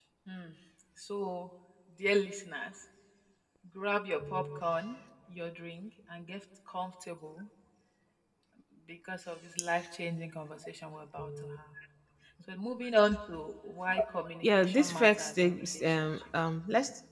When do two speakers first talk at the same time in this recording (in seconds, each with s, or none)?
14.4 s